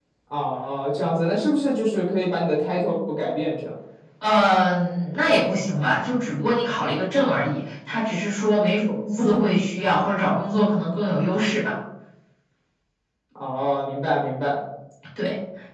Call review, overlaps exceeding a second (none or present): none